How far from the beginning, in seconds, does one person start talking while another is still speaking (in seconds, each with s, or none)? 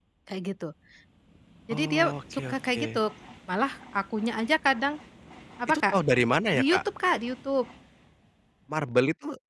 1.7 s